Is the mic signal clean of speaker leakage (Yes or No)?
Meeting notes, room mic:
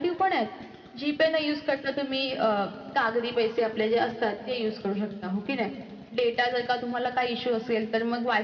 No